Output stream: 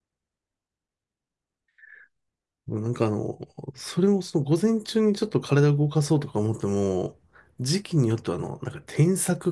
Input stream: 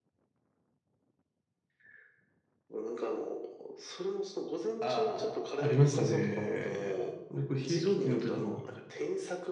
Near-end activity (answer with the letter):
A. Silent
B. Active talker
B